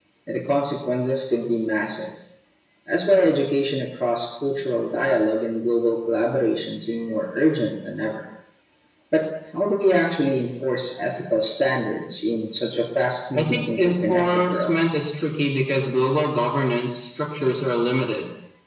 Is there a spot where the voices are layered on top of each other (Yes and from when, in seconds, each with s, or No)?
Yes, from 13.3 s